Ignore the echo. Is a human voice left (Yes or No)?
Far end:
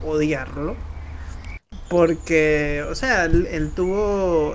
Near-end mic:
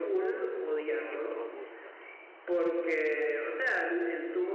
Yes